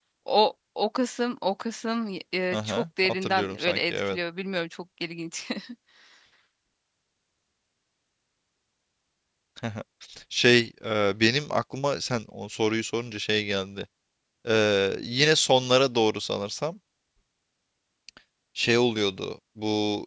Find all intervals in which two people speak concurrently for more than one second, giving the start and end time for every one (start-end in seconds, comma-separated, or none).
2.5-4.2